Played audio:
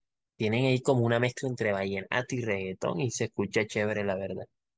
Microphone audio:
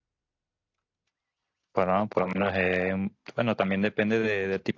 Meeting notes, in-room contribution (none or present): present